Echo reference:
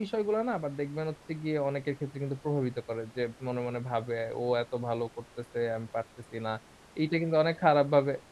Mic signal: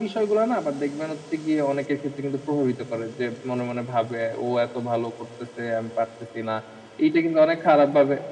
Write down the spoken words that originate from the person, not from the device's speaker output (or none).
none